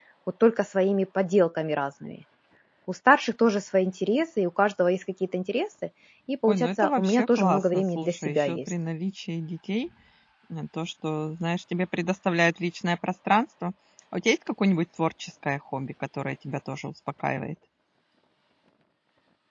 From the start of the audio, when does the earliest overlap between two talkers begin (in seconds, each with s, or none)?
6.5 s